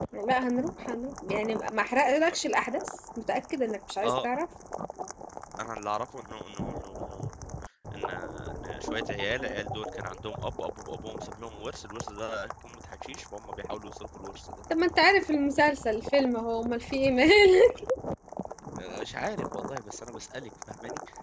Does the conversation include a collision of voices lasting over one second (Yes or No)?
No